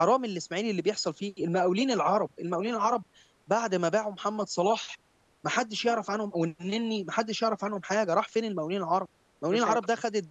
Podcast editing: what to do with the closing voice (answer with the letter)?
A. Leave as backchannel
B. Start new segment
A